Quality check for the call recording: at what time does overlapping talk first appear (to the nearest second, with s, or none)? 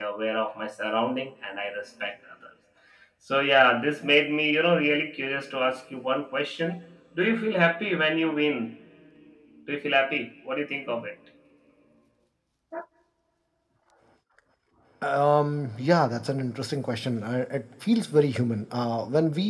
none